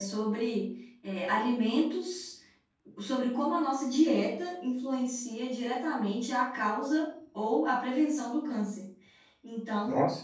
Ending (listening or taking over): listening